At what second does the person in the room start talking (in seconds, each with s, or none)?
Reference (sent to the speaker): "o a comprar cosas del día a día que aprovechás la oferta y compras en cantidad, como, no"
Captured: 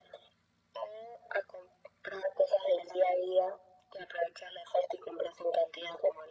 none